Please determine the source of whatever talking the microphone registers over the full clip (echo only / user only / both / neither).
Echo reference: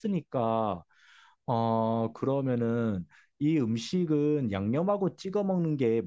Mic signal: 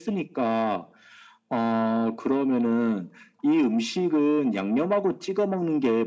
echo only